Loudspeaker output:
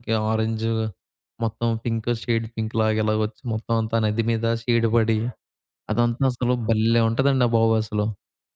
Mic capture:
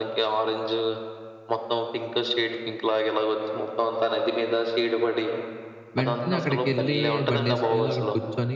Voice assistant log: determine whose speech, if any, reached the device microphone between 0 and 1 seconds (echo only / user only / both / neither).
echo only